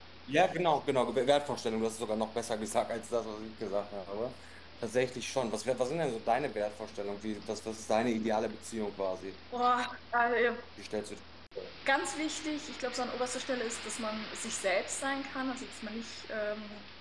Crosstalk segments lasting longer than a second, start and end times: none

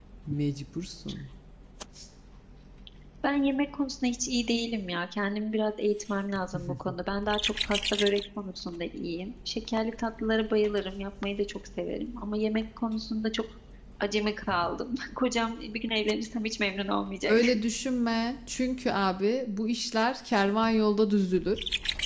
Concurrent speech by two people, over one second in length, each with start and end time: none

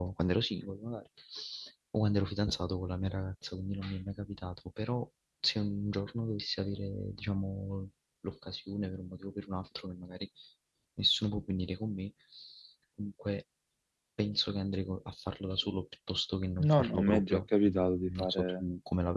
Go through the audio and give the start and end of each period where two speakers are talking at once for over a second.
16.6-18.6

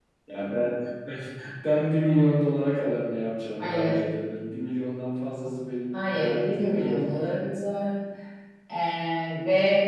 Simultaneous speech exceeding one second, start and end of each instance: 6.1-7.3

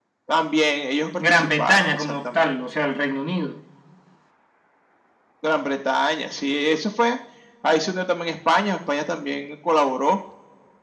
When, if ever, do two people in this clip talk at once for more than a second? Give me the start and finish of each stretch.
1.3-2.5

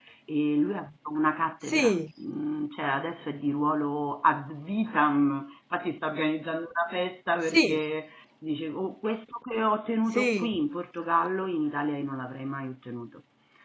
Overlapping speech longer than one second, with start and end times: none

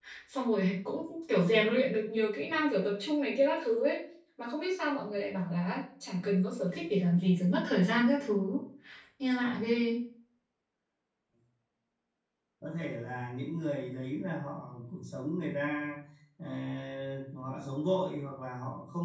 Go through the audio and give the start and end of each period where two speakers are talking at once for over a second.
none

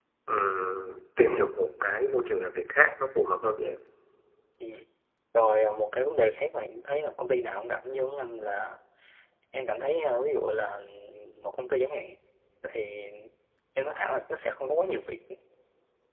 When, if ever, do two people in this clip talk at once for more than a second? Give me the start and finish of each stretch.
none

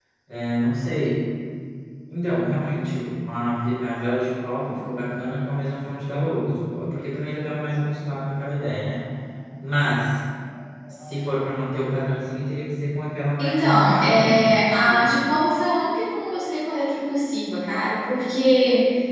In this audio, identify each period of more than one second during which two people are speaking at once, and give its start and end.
13.4-15.1

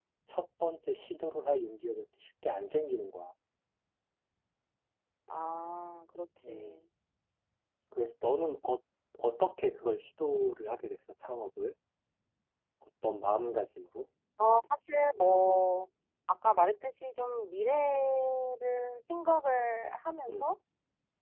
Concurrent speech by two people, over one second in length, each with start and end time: none

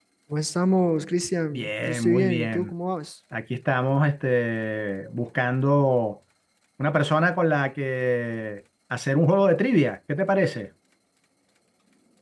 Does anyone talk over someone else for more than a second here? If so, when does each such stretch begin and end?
1.5-2.7

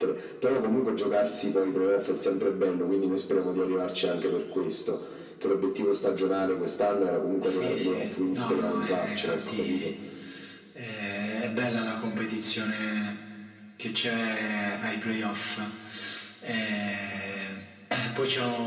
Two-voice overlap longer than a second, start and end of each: 7.4-9.9

